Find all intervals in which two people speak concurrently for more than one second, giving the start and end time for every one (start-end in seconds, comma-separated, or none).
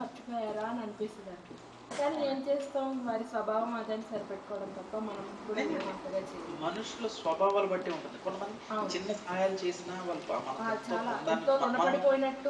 10.7-11.9